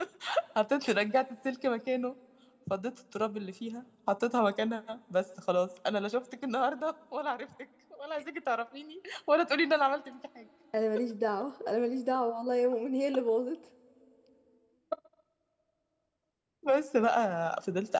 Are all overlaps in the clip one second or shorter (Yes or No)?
Yes